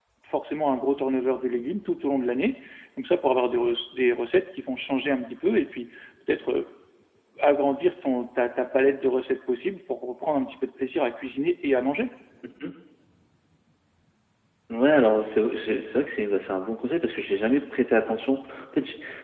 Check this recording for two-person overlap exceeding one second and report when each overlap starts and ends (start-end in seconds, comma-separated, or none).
none